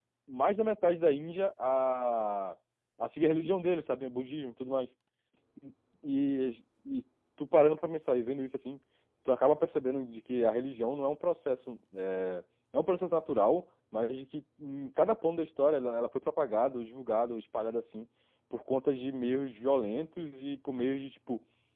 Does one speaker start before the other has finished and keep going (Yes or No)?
No